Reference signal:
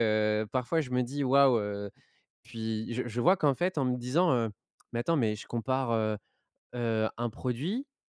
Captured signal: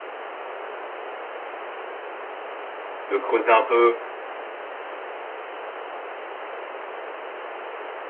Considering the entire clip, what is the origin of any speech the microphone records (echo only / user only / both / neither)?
user only